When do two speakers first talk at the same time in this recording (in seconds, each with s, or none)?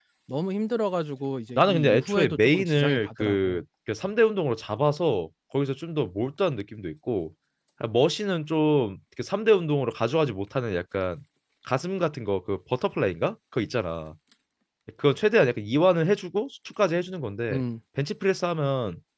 1.6 s